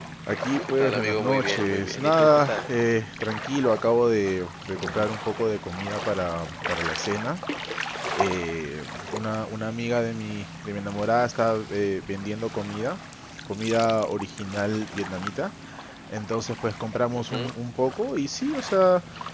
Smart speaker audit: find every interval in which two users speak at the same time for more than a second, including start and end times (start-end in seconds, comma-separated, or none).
0.6-2.7